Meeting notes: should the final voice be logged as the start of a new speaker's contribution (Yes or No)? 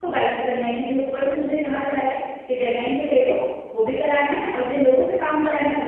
No